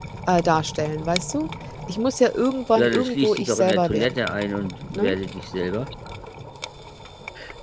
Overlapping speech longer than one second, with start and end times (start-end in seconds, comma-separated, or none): 2.8-4.2